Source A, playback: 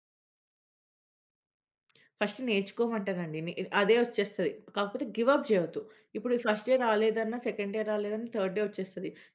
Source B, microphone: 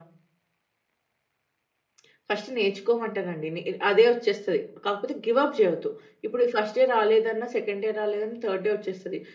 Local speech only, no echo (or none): none